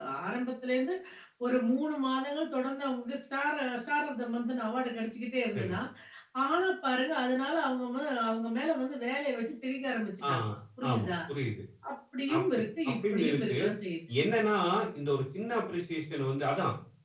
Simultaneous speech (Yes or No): Yes